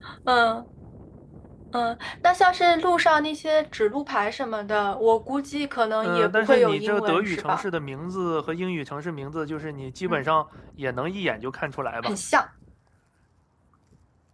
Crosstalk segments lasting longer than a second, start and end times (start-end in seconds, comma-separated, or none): 6.0-7.7